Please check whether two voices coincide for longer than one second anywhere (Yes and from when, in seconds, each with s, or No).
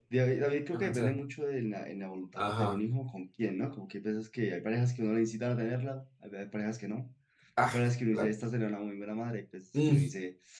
No